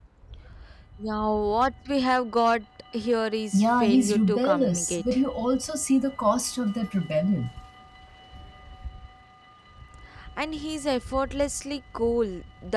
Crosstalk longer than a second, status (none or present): present